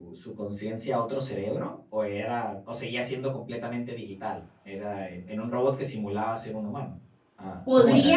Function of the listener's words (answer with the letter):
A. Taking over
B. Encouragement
A